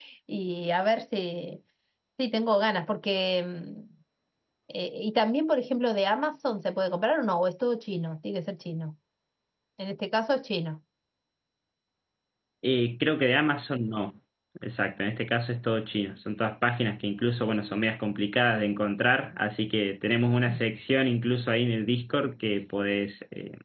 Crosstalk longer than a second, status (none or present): none